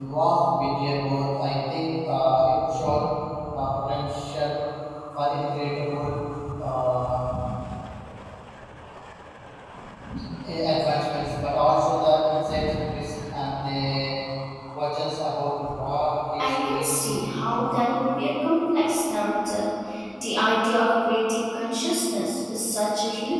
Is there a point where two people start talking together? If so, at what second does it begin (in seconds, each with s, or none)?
16.4 s